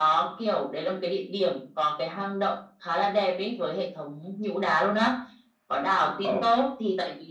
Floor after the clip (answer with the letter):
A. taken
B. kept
B